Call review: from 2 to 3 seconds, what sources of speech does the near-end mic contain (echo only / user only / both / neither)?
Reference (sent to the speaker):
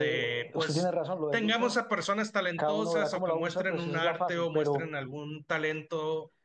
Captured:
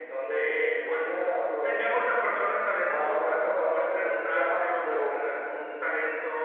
echo only